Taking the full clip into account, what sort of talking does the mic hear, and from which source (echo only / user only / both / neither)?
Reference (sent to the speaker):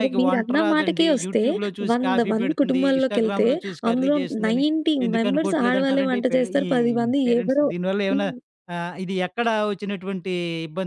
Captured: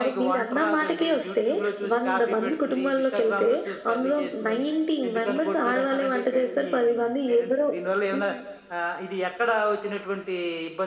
echo only